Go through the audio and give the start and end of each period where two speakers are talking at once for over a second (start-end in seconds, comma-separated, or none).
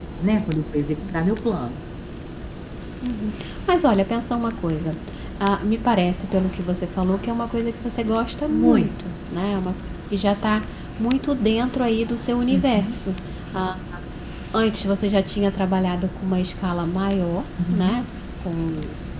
none